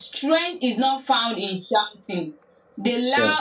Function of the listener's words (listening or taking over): listening